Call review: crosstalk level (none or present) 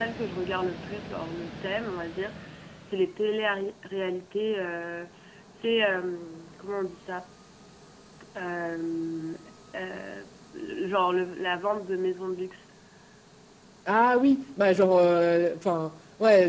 none